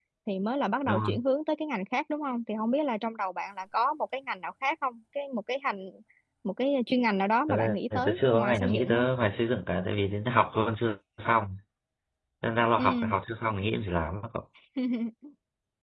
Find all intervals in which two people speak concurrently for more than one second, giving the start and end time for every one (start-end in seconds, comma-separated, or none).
7.5-9.1